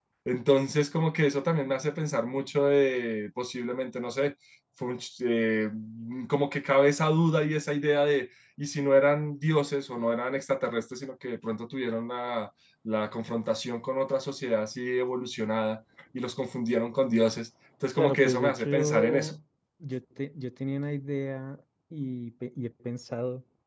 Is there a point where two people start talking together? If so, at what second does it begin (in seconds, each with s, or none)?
18.0 s